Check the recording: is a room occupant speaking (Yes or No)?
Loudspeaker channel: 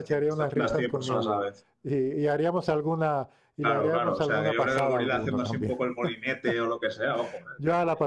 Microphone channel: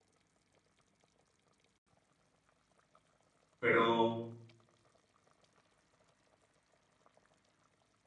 Yes